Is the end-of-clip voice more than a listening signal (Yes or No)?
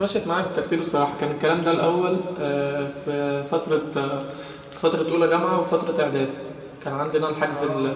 No